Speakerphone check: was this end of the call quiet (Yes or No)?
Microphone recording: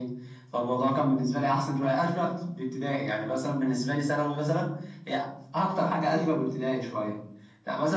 Yes